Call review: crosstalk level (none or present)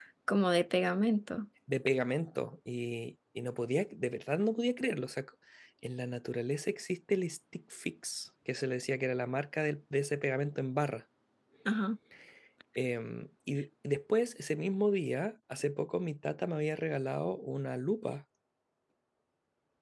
none